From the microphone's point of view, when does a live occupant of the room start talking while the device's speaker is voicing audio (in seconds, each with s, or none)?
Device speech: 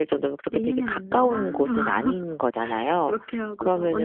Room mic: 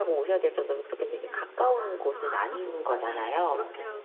2.6 s